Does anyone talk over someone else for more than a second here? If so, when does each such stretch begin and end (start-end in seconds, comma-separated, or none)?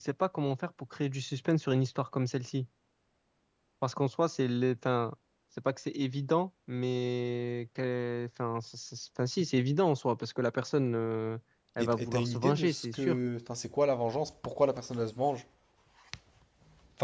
11.8-13.2